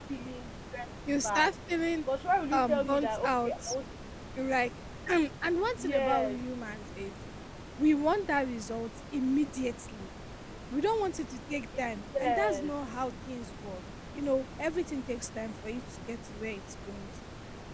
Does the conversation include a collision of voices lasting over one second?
Yes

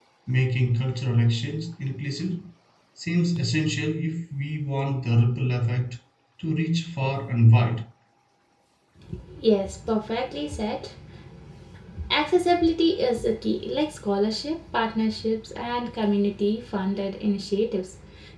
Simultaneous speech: No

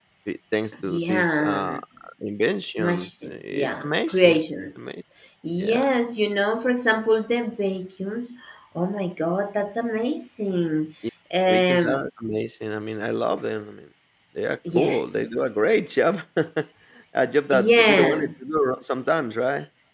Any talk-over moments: Yes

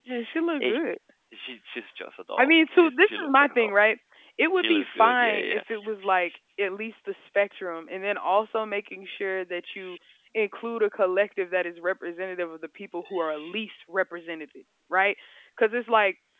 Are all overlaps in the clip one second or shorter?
No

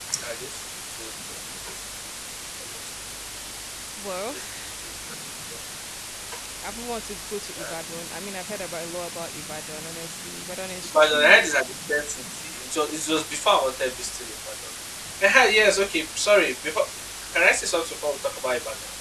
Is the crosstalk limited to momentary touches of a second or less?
Yes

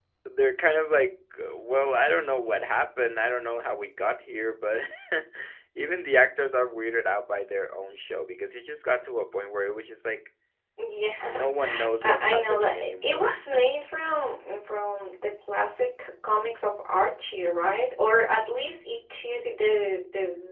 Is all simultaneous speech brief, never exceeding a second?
No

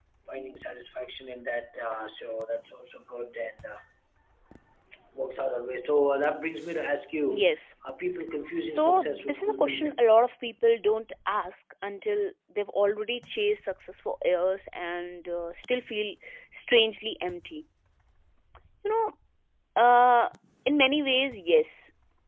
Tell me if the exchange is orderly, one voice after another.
No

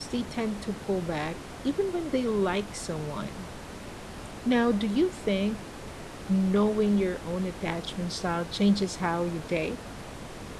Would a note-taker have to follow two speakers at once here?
No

